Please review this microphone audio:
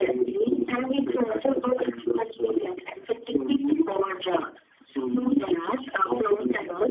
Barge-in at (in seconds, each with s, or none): none